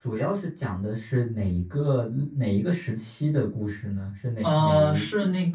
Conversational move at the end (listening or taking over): taking over